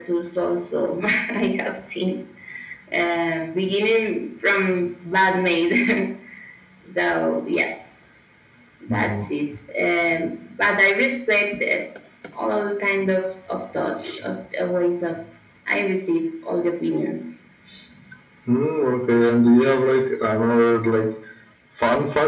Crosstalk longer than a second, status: none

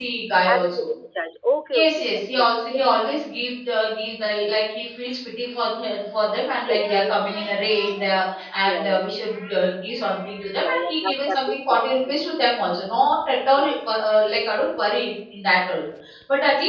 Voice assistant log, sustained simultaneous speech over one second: present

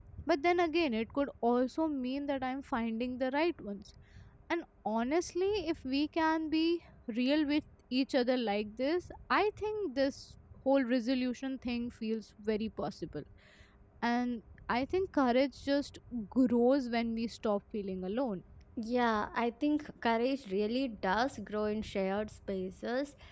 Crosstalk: none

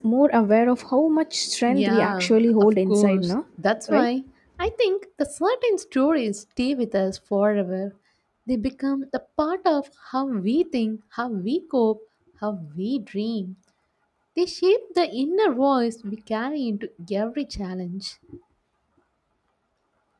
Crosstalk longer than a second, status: present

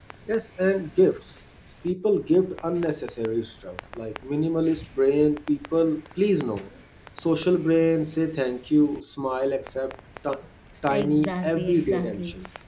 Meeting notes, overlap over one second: present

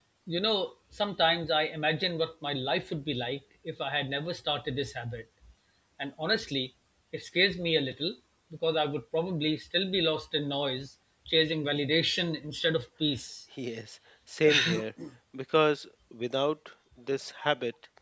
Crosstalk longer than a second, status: none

